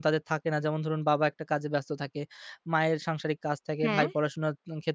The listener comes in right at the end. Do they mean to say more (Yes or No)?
No